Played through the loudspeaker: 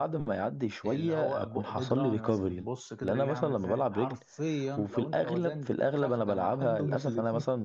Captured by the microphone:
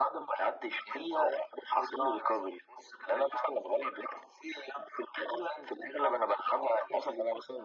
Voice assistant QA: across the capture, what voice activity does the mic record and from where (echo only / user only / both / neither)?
echo only